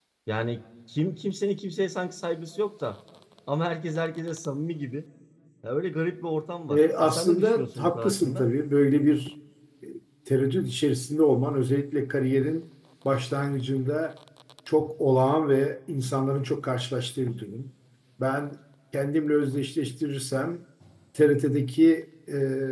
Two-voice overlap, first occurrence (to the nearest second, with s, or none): 7 s